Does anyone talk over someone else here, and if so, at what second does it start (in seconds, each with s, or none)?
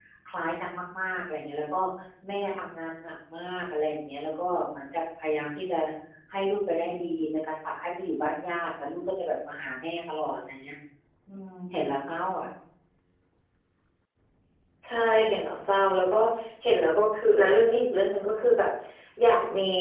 none